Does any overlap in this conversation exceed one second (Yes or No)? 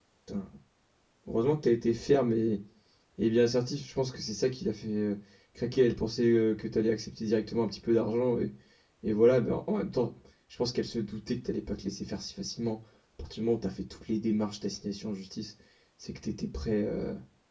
No